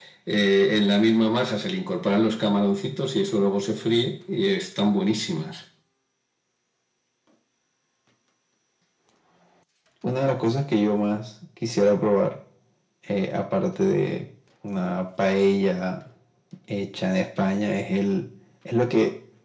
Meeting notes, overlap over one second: none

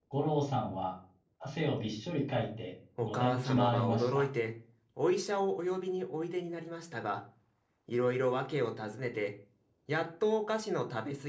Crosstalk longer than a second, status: present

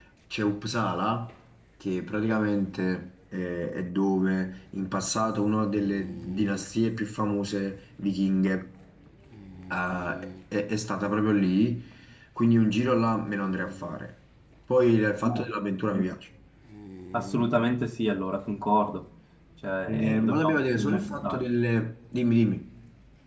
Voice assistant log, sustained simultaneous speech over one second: present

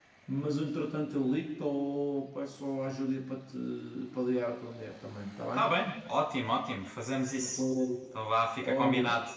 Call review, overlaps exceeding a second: none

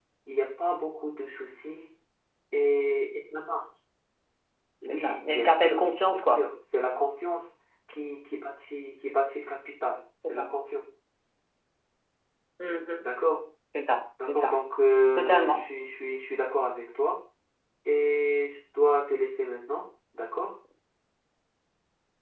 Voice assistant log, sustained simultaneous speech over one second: present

